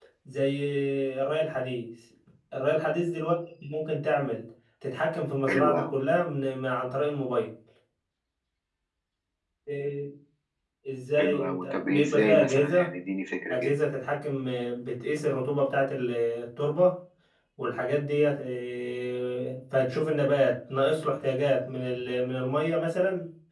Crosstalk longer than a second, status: present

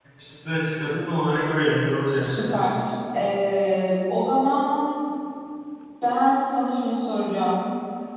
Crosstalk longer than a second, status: none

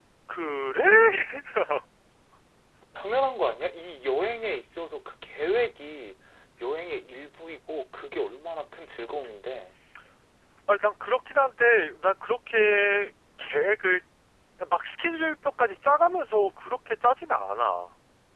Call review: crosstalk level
none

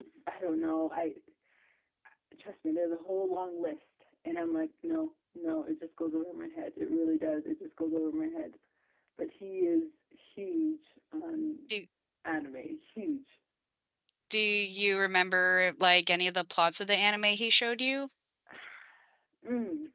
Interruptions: none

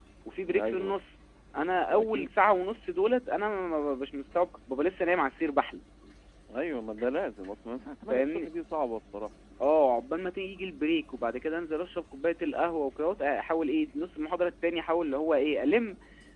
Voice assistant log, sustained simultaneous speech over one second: none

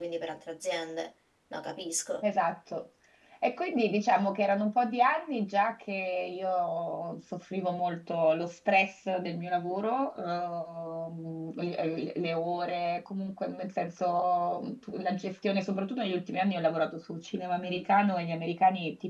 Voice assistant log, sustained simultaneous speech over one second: none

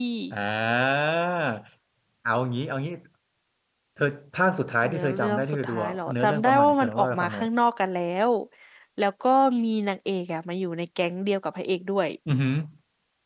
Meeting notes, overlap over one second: present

